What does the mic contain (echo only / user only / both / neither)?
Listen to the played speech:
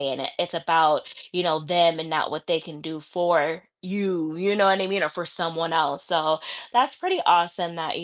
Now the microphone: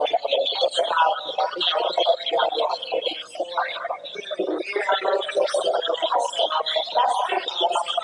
echo only